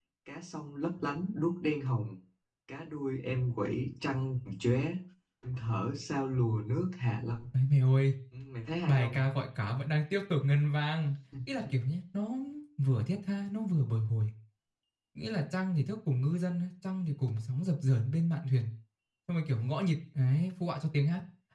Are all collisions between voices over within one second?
Yes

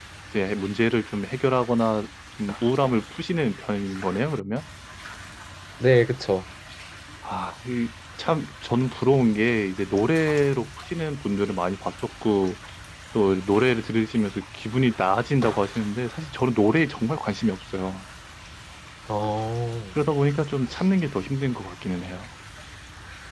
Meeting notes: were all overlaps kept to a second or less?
Yes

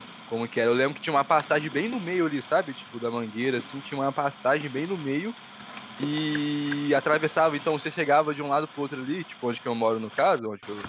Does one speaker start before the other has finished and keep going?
No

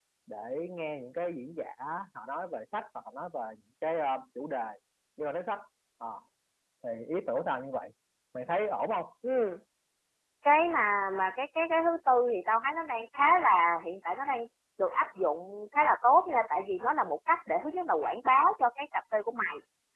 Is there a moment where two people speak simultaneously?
No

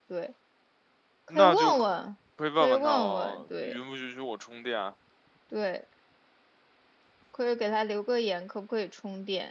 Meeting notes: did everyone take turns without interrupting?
No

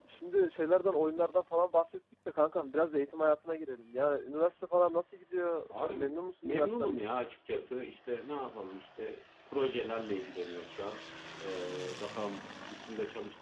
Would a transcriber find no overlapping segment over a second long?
No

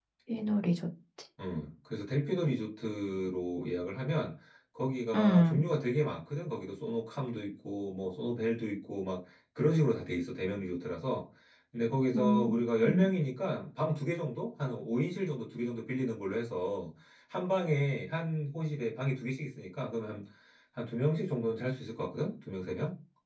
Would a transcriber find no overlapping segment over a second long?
Yes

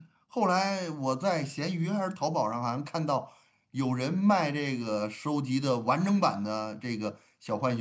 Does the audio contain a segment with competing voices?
No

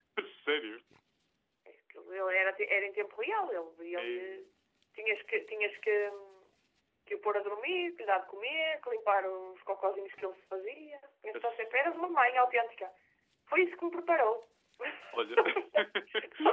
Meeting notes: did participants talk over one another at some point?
Yes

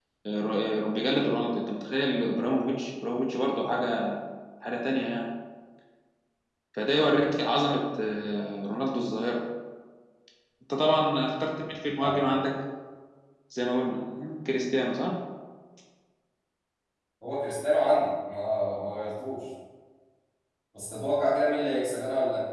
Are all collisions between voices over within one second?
Yes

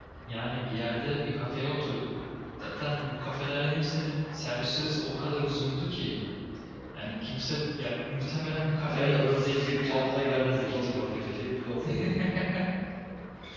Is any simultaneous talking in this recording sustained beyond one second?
Yes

